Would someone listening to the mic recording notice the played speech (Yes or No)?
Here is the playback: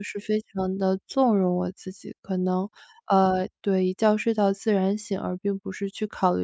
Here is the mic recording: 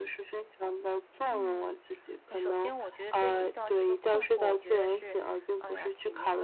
Yes